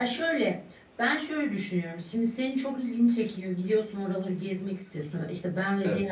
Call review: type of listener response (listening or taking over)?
listening